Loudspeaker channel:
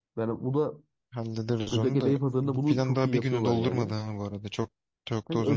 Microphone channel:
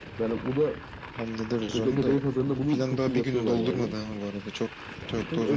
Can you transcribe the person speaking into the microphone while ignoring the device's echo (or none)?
none